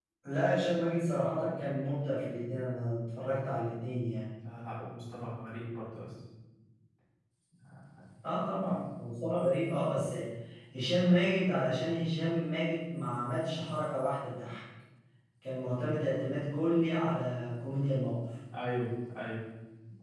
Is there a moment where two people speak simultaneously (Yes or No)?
No